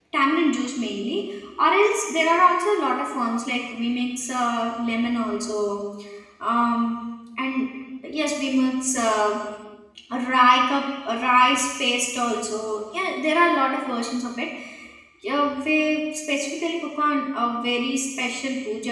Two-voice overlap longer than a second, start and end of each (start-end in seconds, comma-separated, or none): none